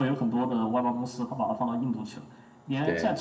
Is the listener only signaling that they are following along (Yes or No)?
Yes